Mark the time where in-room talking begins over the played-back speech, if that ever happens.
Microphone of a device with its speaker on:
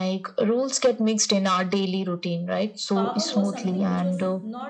3 s

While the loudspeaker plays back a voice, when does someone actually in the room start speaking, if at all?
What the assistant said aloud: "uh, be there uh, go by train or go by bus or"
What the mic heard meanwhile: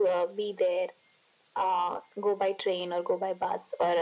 none

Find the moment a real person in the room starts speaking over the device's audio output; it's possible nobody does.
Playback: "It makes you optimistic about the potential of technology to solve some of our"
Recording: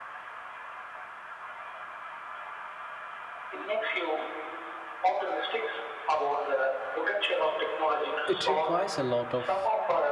8 s

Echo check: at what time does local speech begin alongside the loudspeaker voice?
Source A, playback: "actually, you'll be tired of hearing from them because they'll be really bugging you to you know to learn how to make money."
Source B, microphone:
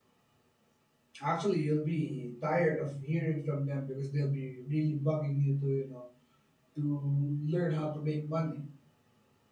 none

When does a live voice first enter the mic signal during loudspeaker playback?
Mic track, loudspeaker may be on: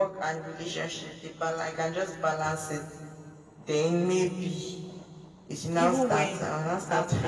6 s

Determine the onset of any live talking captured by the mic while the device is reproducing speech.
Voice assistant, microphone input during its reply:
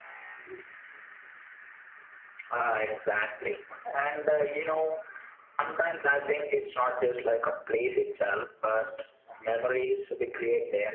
none

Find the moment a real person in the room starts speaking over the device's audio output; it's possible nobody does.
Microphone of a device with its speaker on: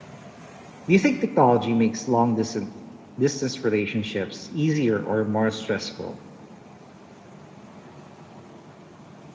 1 s

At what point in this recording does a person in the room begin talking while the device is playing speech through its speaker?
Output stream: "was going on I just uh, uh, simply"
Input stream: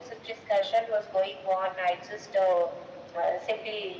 none

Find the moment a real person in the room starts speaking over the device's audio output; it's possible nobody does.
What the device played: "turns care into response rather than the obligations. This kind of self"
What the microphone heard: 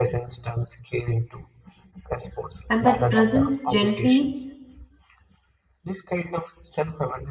3 s

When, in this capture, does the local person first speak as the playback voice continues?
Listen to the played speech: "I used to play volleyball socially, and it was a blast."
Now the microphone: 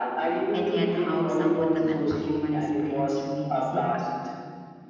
1 s

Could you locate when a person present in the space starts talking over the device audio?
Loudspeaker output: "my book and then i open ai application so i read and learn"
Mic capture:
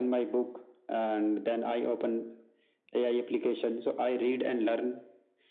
none

